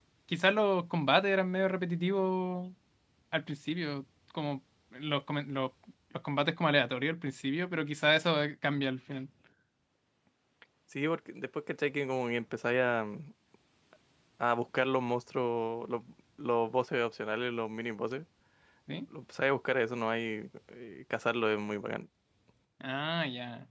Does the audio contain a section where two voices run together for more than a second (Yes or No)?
No